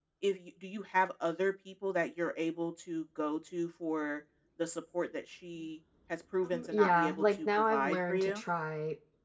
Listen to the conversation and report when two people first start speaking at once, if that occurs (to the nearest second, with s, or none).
6 s